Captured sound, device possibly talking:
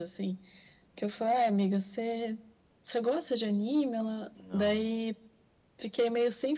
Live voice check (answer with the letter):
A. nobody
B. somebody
B